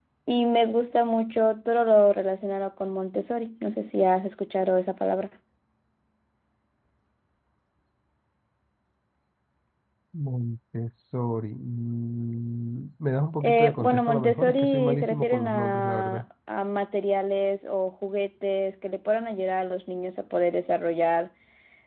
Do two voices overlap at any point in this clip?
Yes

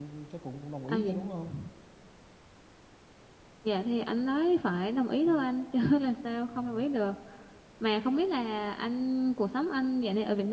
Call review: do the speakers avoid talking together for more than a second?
Yes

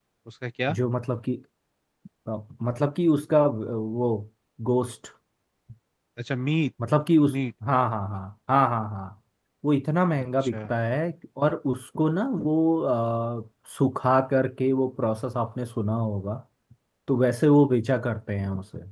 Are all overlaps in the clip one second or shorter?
Yes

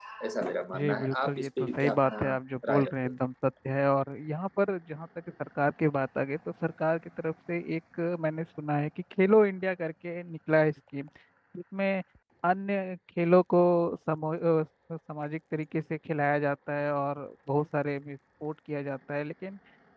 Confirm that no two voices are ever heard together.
No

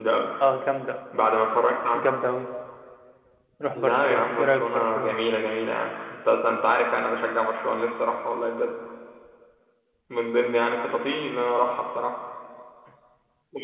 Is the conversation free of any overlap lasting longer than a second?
No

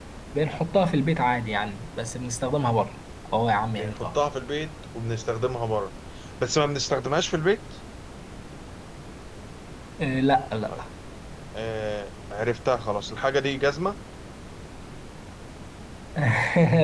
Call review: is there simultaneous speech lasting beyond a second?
No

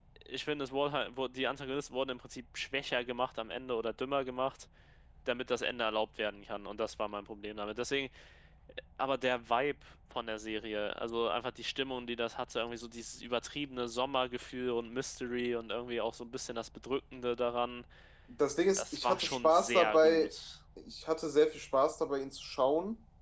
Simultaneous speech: Yes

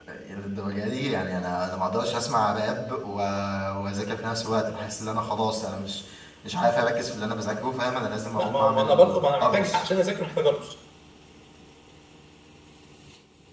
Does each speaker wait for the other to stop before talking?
No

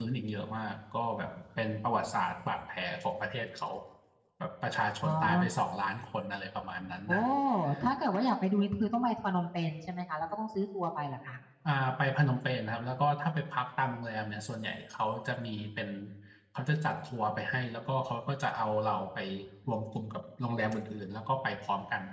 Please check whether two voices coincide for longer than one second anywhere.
No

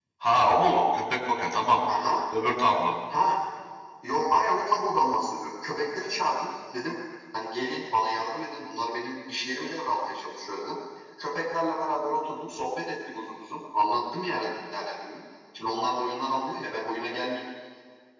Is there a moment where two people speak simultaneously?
No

